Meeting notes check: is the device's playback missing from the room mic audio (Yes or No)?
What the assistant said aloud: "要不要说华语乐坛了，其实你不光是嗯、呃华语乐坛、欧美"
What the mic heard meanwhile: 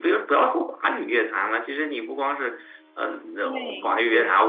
No